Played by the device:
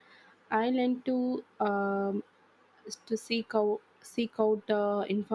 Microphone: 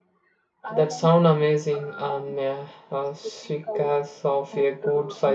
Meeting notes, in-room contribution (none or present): present